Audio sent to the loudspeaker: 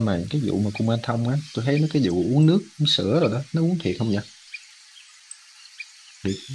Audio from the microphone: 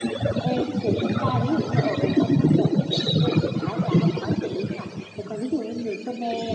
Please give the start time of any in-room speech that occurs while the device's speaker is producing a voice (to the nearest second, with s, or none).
0 s